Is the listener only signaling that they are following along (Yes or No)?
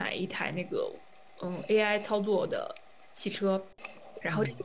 Yes